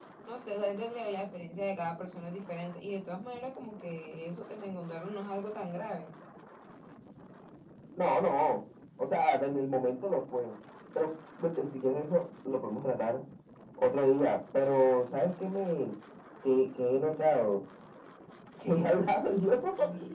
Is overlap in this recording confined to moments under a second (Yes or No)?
Yes